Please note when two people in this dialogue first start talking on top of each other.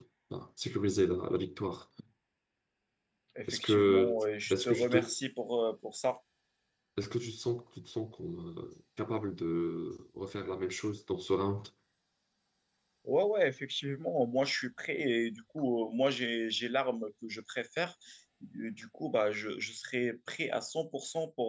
3.5 s

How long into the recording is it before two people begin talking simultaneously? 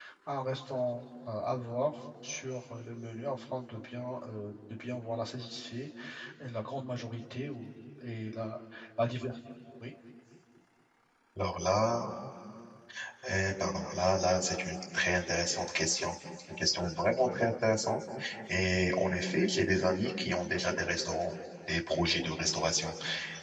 none

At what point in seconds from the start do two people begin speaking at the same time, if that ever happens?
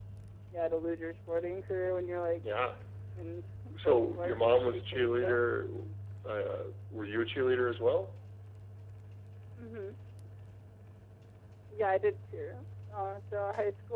3.8 s

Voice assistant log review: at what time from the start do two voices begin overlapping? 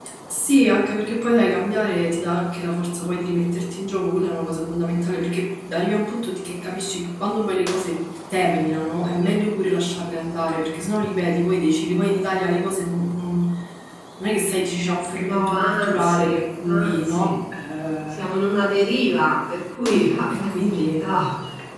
15.2 s

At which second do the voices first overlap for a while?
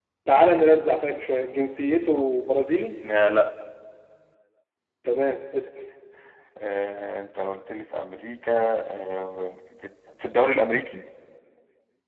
none

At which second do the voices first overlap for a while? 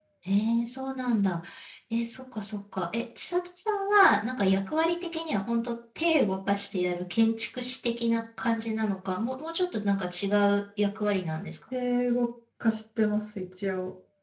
none

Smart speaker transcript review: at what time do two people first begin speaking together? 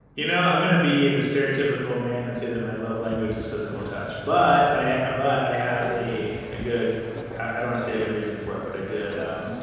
none

